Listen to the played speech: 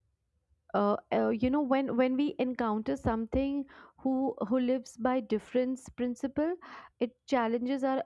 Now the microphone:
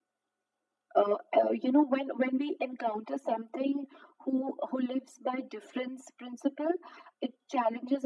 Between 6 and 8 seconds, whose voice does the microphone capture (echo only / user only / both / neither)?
echo only